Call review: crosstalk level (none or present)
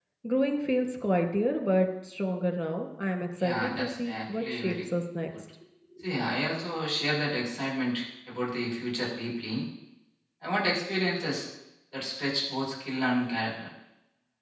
present